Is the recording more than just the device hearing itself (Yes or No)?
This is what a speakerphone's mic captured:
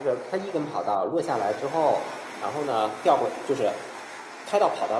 Yes